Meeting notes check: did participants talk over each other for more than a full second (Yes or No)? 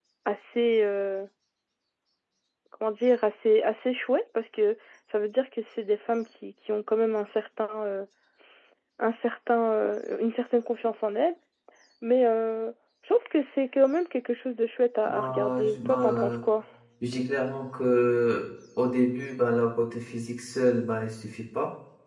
Yes